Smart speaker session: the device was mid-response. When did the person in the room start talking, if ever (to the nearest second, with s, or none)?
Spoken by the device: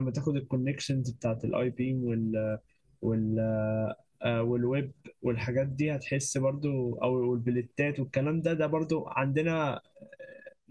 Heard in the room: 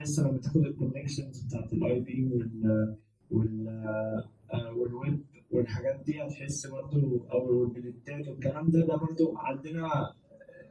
none